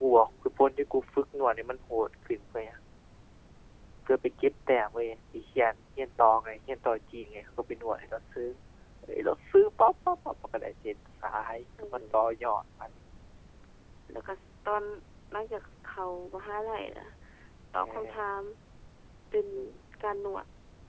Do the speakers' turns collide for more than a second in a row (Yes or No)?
No